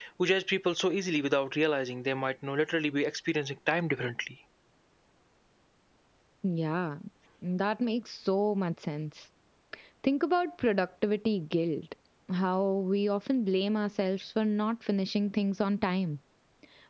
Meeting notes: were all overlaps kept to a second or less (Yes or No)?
Yes